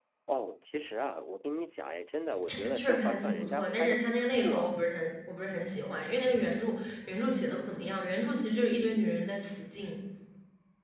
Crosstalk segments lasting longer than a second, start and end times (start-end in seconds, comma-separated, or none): 2.5-4.8